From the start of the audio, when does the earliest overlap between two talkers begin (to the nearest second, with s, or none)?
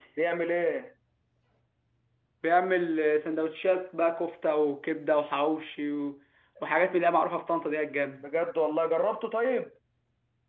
none